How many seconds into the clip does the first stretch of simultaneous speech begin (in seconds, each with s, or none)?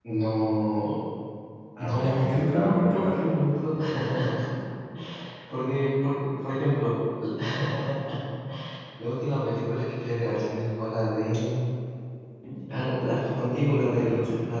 1.8 s